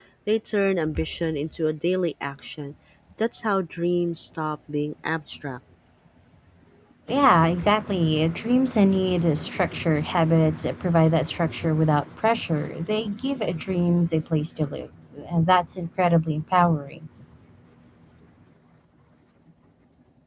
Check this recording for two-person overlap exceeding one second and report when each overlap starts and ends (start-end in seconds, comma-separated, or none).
none